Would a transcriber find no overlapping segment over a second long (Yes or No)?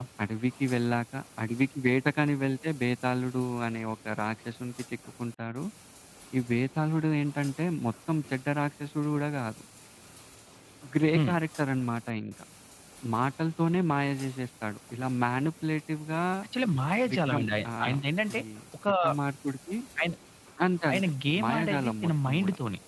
No